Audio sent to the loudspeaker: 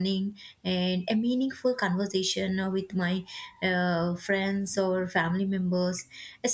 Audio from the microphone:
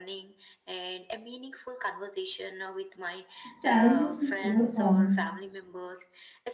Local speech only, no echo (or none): the challenges we overcome